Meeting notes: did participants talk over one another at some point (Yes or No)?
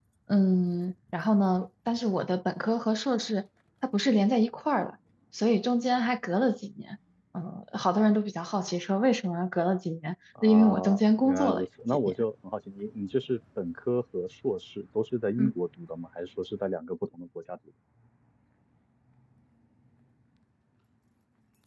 Yes